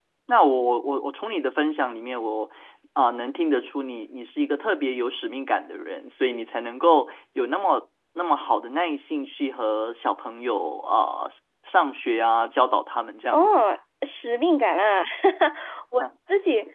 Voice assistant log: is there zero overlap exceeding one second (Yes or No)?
Yes